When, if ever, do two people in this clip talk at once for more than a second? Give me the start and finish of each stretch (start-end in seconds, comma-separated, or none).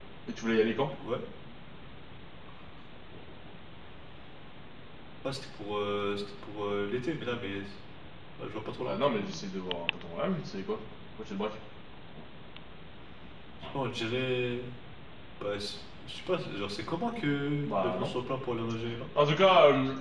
none